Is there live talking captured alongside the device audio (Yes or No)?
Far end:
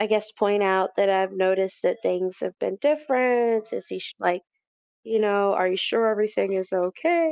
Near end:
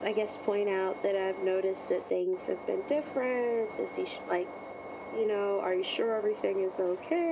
No